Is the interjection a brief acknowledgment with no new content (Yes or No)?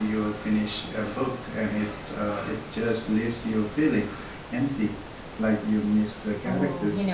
No